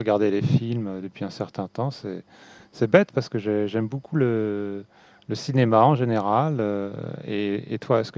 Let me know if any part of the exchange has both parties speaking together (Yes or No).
No